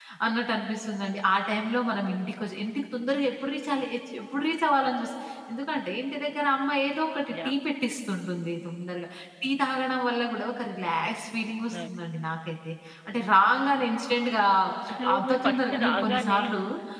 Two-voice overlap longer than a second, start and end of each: 15.2-16.4

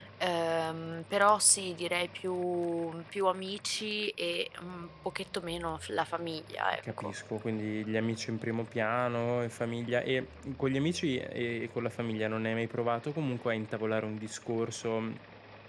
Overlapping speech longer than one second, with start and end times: none

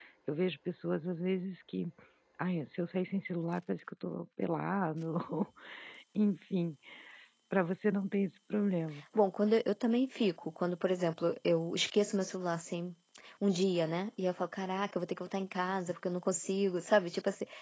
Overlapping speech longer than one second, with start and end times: none

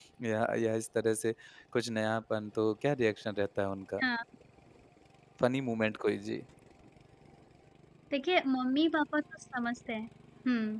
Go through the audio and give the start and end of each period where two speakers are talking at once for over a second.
none

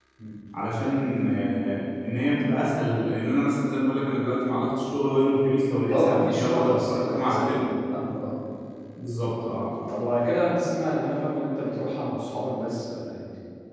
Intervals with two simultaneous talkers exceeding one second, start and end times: 5.8-7.6

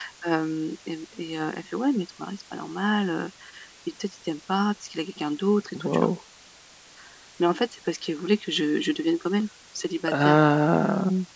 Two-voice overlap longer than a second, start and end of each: none

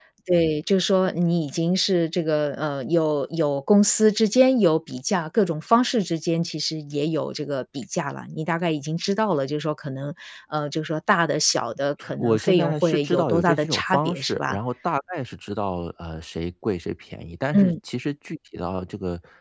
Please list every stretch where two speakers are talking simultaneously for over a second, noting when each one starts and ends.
12.2-14.6

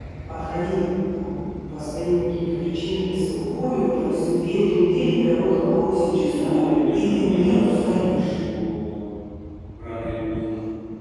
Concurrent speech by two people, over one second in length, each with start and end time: 6.9-8.3

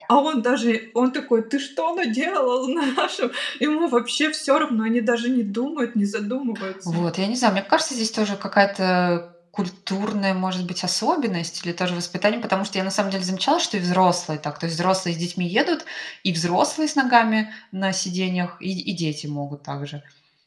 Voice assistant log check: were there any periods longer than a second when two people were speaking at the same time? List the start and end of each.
none

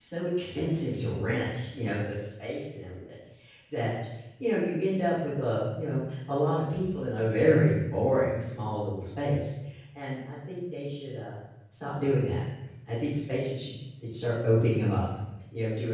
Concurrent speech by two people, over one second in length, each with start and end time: none

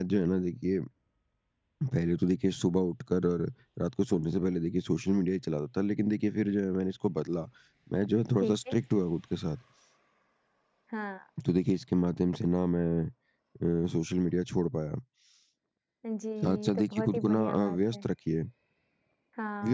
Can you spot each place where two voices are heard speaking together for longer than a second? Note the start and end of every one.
16.6-18.1

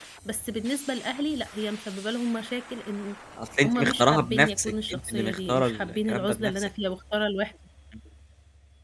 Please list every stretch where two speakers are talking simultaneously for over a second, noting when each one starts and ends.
3.6-6.7

